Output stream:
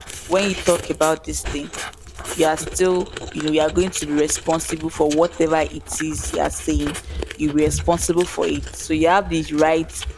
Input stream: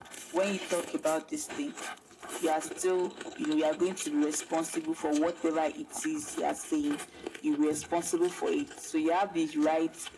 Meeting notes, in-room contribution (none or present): none